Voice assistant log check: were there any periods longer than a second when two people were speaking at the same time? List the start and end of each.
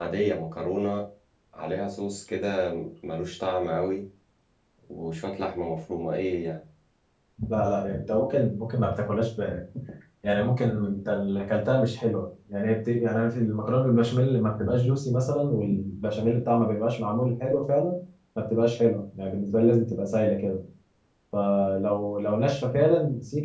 none

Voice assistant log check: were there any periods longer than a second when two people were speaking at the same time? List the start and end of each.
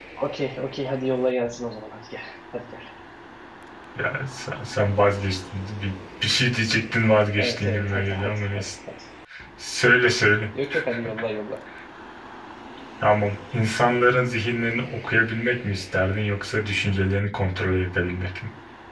7.4-8.7

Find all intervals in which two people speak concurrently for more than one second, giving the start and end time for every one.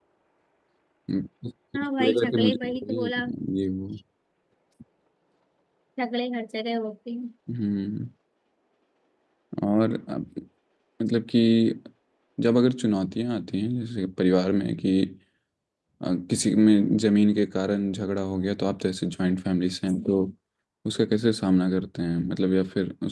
1.8-3.1

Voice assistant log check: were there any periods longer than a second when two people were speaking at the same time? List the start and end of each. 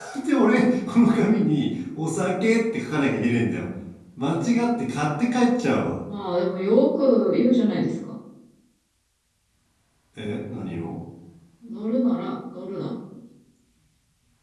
none

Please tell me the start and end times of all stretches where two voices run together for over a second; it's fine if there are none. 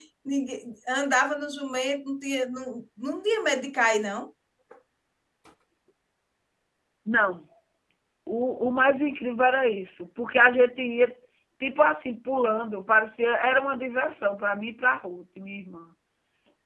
none

